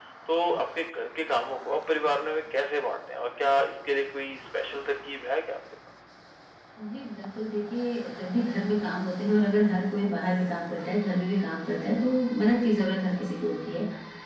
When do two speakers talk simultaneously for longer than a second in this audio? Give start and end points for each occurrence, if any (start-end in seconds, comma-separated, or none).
none